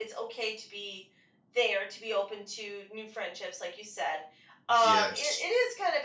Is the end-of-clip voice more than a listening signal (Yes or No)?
No